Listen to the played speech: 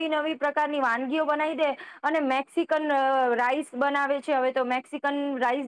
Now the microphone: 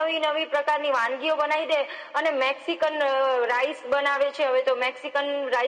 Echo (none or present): present